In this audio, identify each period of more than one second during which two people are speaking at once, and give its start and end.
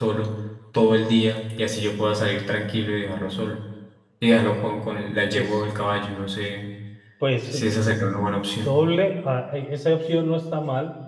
7.5-8.7

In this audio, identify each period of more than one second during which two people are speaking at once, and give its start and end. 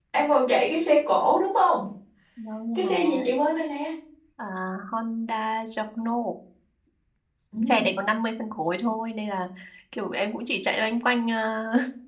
none

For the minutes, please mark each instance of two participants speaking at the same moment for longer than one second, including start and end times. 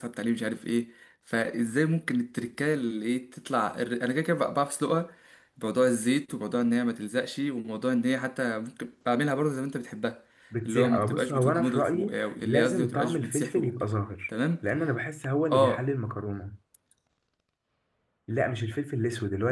10.7-13.7

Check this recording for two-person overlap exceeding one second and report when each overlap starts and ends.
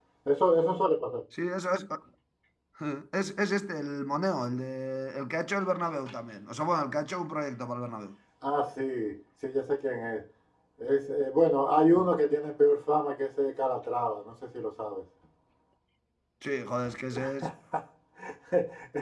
none

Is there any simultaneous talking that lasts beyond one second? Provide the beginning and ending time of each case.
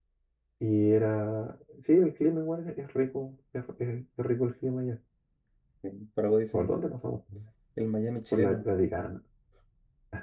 none

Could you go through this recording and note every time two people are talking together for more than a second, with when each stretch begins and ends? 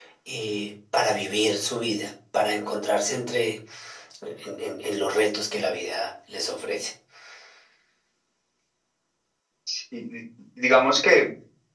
none

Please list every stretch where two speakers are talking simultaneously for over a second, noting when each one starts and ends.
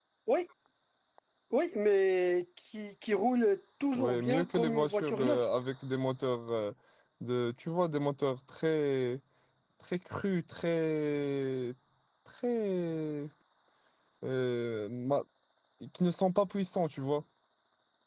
4.0-5.4

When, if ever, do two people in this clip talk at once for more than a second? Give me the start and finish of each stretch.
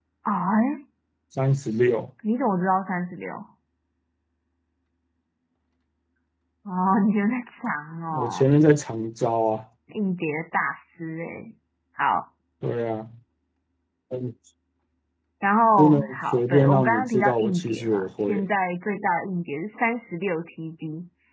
15.8-18.4

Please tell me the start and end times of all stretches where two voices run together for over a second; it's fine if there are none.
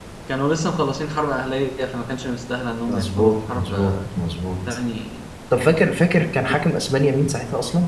2.9-4.1

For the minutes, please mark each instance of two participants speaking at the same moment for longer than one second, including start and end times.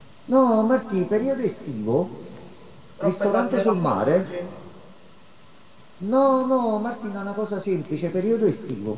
3.0-4.2

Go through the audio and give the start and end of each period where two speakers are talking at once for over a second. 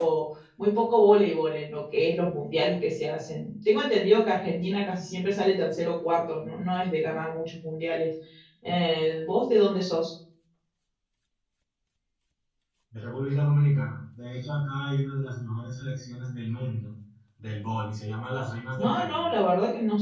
none

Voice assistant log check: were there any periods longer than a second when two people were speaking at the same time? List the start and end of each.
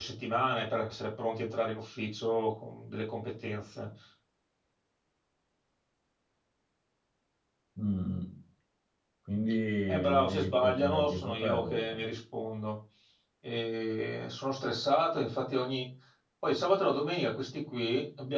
9.9-12.0

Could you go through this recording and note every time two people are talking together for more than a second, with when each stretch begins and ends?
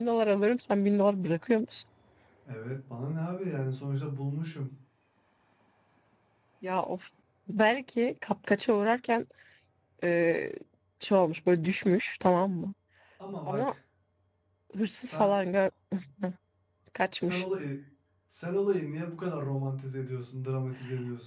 none

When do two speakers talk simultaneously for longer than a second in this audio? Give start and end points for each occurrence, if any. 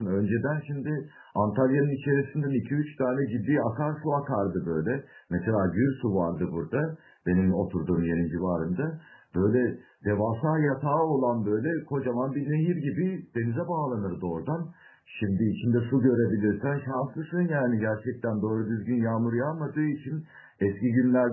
none

